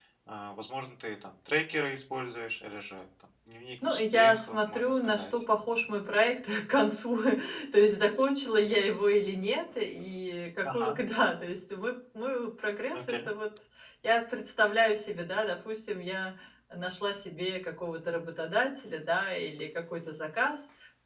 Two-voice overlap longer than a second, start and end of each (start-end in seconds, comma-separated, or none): 3.9-5.4